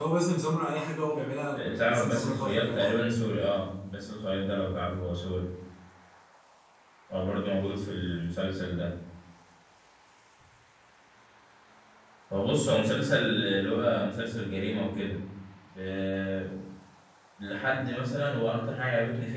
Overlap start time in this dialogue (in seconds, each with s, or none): 1.5 s